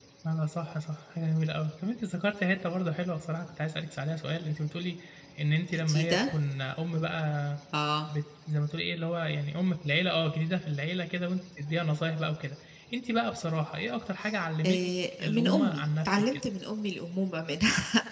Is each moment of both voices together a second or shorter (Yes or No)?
No